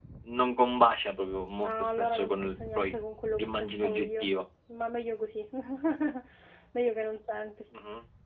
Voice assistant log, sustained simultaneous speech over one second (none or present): present